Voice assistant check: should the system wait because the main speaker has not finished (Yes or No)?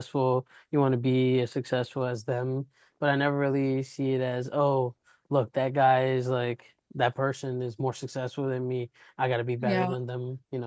Yes